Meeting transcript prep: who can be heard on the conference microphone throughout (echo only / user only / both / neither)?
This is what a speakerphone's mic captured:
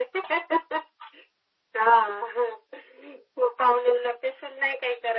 echo only